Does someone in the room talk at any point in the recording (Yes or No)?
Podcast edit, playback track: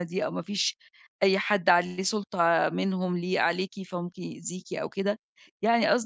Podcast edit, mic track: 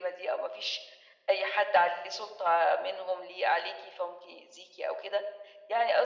No